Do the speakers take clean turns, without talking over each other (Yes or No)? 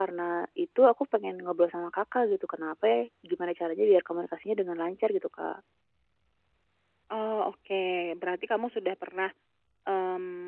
Yes